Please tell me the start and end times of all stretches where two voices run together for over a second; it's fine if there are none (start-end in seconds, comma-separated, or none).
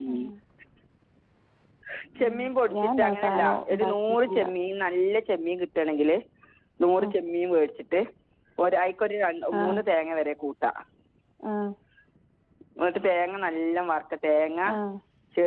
2.8-4.5